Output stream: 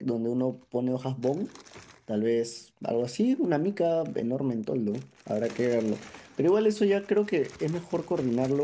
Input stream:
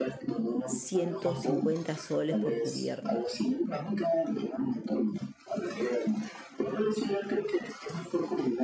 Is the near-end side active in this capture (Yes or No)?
Yes